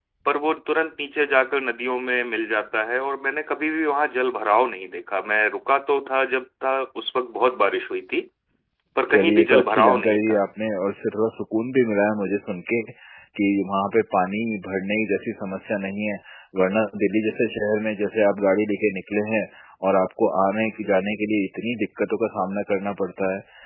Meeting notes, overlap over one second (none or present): present